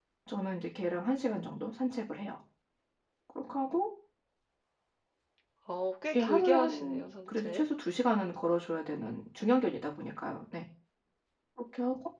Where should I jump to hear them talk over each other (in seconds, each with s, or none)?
6.2 s